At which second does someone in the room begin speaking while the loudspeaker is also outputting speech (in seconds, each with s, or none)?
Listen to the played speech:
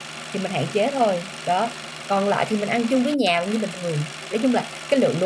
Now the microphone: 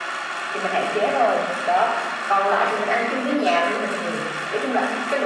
none